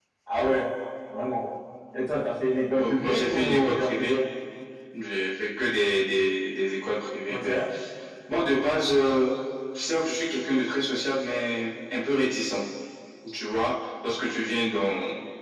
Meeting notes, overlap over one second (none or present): present